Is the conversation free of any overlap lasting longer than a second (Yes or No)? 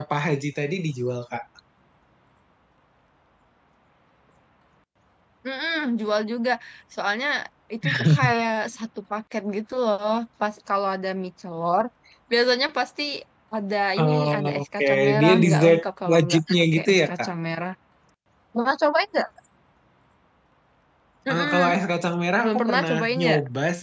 No